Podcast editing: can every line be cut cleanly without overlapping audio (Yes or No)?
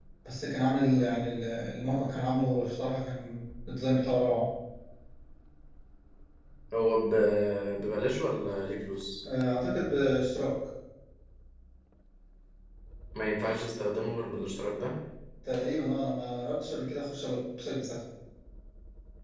Yes